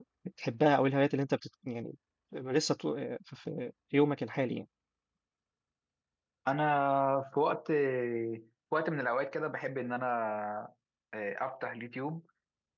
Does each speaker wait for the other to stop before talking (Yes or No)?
Yes